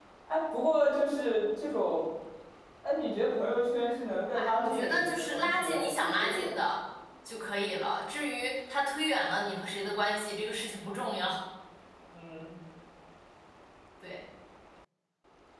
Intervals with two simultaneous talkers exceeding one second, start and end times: 4.3-6.6

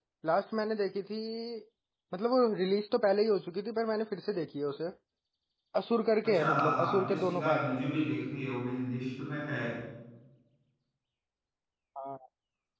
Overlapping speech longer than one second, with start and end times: 6.2-7.6

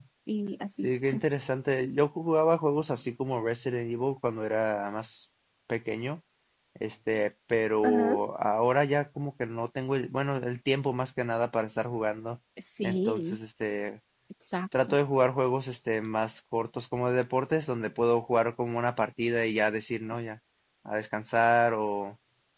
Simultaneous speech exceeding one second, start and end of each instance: none

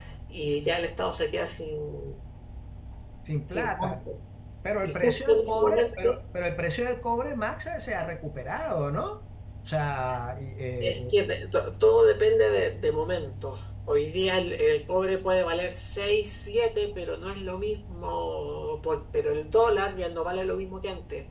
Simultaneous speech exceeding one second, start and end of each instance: 4.8-6.1

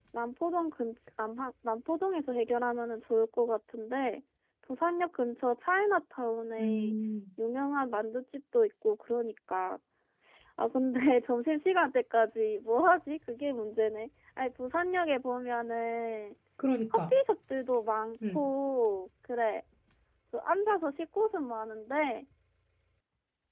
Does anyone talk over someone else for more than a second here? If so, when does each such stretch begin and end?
none

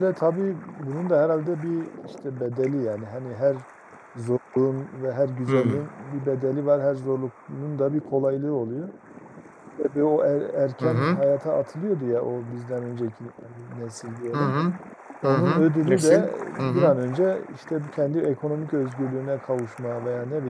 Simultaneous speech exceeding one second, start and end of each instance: 15.2-16.9

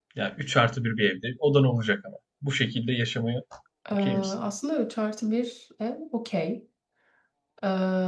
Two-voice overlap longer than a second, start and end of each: none

